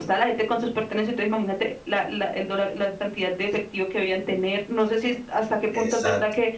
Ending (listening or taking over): listening